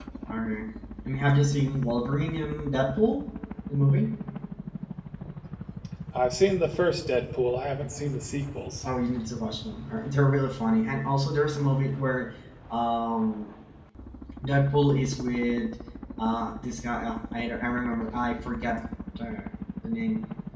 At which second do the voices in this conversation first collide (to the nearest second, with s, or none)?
none